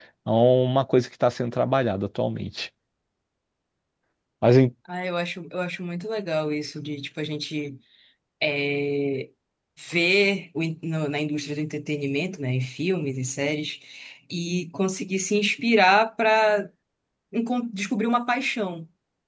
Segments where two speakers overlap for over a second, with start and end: none

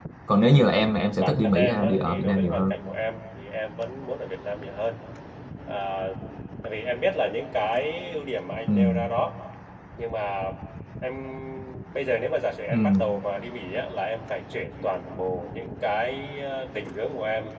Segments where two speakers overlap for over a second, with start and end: 1.2-2.7

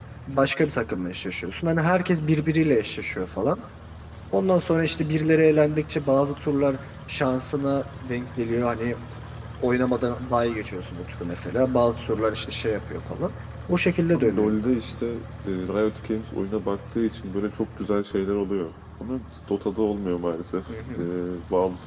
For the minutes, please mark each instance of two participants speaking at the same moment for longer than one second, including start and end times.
none

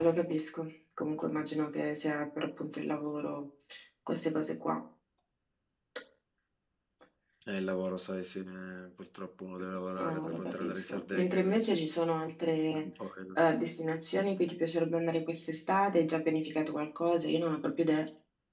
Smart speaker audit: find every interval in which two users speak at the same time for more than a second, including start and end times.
9.9-11.7

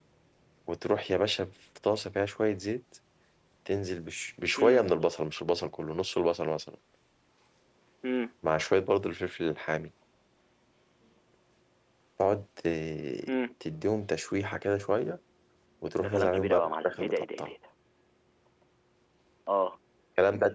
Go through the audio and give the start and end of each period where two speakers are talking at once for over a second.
16.0-17.5

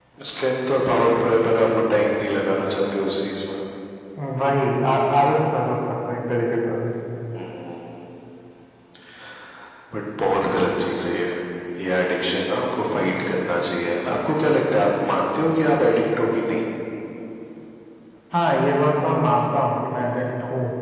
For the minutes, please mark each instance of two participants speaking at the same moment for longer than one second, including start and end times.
none

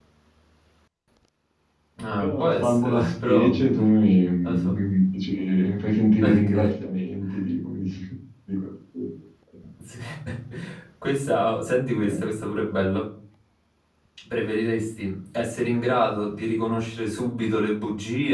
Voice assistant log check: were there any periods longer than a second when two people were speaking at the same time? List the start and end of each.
2.2-3.6

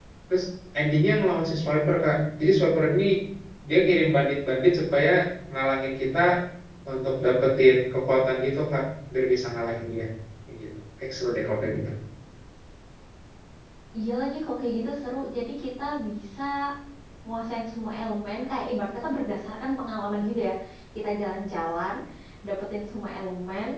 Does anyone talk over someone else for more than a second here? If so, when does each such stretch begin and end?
none

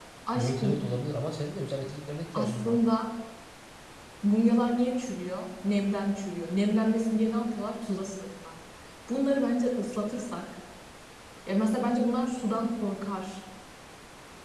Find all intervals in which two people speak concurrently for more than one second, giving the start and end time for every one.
none

